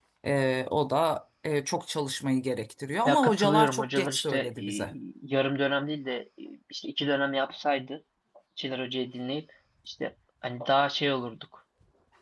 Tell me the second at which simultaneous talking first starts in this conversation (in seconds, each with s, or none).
3.0 s